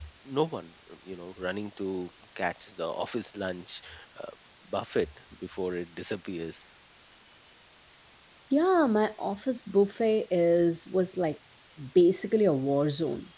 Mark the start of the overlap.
none

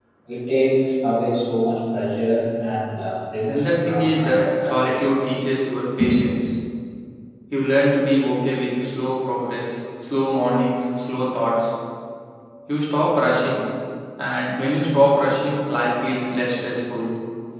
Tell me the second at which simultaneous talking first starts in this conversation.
3.5 s

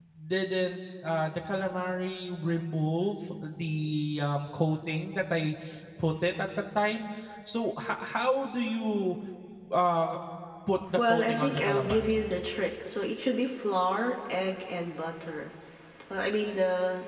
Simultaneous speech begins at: 11.0 s

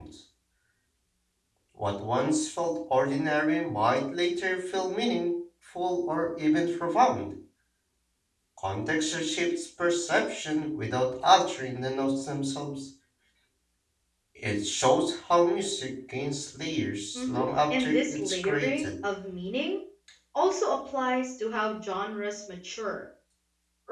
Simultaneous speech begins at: 17.1 s

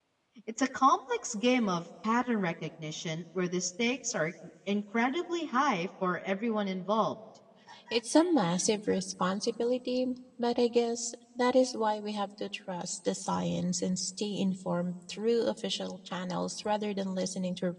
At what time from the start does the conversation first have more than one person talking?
none

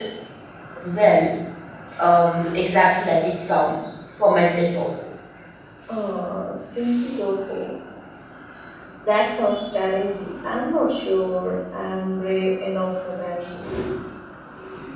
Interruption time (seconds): none

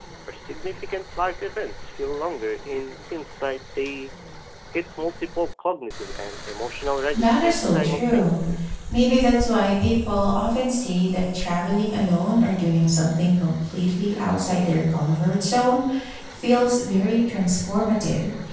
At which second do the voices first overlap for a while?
7.1 s

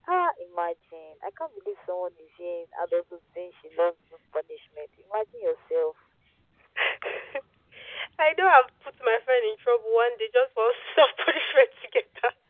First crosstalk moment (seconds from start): none

